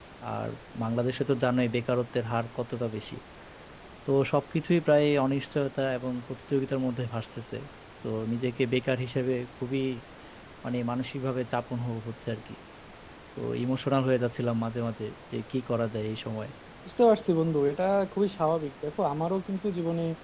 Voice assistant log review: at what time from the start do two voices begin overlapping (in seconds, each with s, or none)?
none